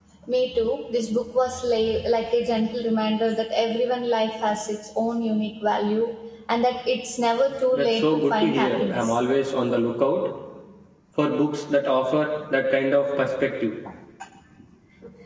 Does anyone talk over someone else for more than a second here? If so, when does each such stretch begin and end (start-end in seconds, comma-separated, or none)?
7.7-9.2